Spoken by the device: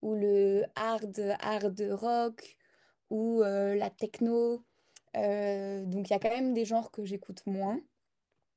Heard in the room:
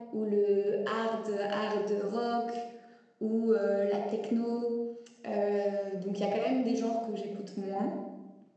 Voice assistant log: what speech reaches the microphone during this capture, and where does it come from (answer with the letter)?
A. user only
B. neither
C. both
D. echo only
D